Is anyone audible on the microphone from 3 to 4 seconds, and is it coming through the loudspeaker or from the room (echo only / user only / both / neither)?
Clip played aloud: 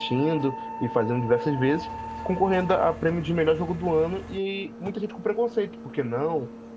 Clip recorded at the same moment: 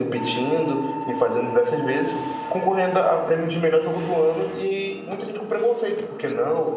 echo only